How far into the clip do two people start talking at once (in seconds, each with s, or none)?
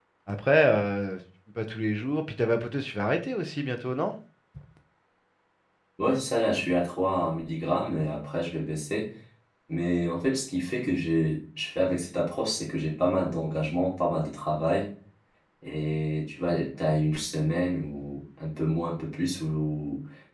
none